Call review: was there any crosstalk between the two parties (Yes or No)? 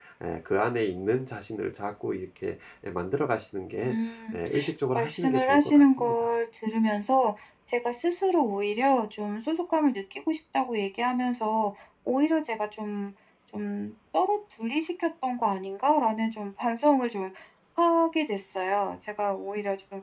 Yes